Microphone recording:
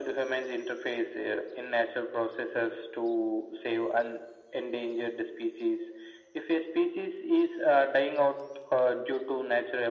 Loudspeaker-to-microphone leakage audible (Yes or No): Yes